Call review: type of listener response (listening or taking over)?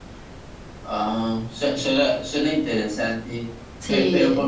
listening